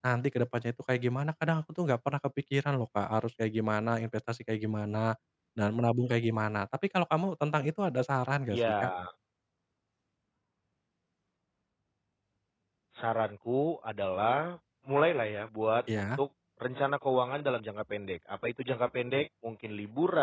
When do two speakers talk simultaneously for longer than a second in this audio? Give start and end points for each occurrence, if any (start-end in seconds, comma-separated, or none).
none